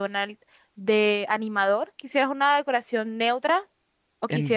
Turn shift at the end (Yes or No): Yes